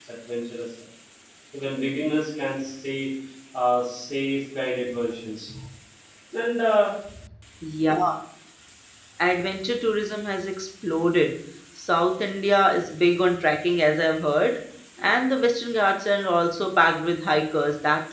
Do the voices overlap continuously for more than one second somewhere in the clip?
No

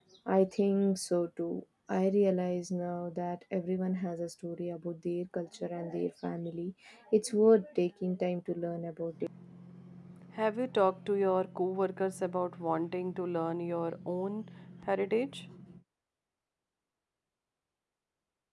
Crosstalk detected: No

